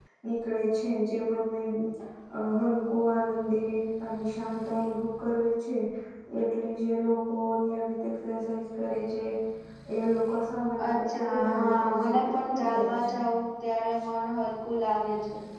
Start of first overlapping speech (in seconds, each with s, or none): 10.8 s